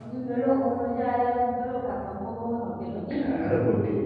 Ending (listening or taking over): taking over